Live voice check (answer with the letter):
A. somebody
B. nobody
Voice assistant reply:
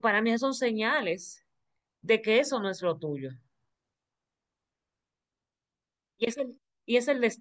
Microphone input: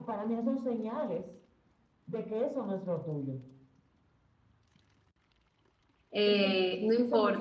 A